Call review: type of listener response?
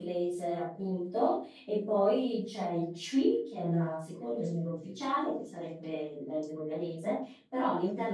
listening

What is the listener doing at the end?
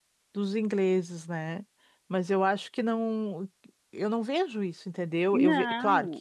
listening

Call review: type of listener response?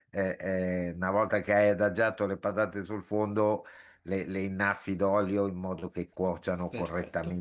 listening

